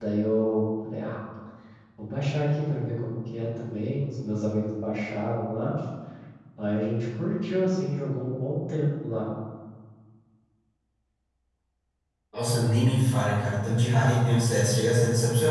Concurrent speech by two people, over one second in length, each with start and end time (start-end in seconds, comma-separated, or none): none